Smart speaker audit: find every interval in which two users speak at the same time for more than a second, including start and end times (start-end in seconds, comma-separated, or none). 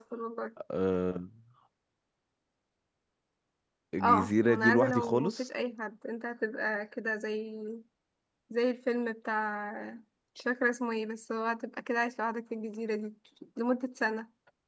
4.0-5.4